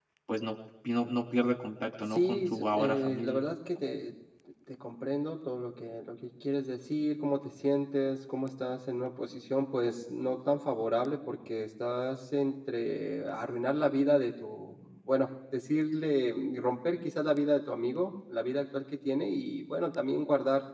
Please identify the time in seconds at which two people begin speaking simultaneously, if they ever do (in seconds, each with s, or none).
2.1 s